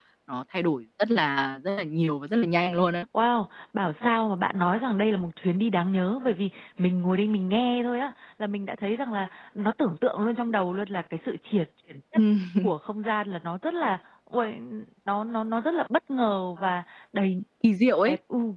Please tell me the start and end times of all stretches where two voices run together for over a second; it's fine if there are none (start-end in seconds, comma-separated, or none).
none